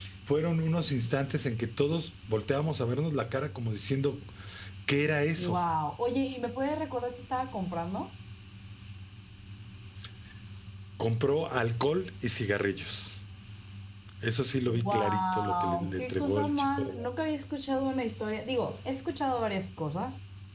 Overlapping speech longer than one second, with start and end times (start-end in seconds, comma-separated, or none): 14.7-17.0